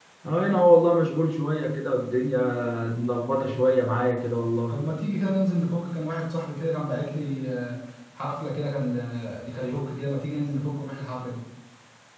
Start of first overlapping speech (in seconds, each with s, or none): none